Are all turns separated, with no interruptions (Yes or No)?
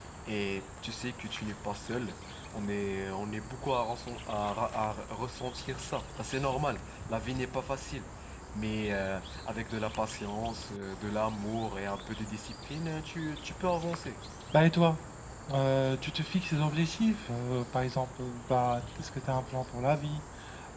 Yes